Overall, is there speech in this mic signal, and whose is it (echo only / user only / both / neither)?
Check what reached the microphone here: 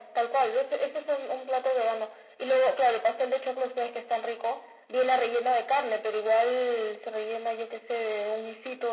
echo only